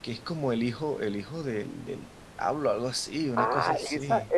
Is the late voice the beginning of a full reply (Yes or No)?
Yes